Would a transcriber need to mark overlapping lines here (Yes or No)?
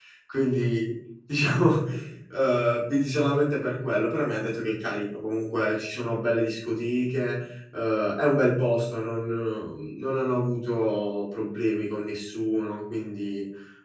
No